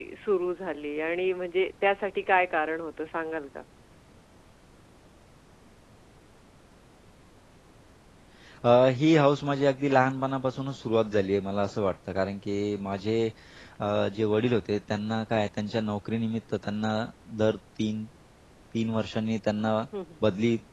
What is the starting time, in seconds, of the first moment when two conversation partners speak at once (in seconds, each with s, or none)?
none